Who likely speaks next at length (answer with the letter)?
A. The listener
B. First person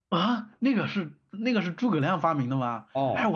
A